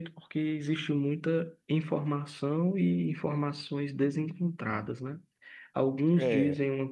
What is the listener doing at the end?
listening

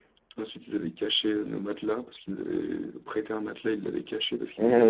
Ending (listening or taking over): taking over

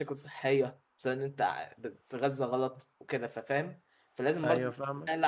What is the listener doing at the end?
listening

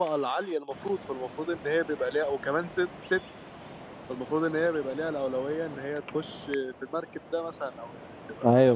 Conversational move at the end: taking over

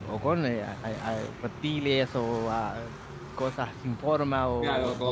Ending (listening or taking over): taking over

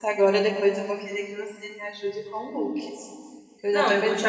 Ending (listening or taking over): taking over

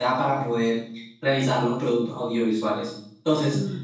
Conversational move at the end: listening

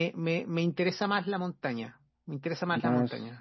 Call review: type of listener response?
taking over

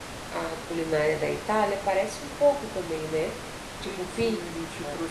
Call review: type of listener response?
taking over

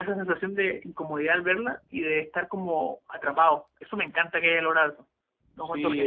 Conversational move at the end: taking over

